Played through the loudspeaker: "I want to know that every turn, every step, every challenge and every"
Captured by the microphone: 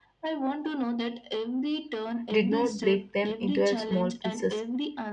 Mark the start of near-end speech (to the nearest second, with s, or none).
2 s